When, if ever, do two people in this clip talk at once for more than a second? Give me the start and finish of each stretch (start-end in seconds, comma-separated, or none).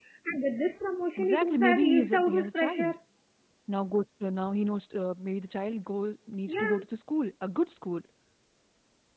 1.2-2.9